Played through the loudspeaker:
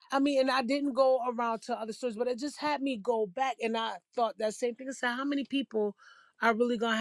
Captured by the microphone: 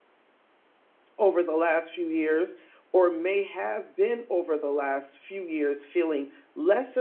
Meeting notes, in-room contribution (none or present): present